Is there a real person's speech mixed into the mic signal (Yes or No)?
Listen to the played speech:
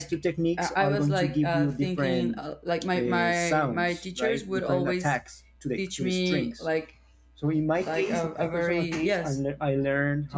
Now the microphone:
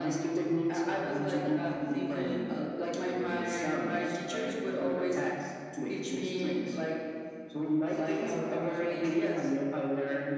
No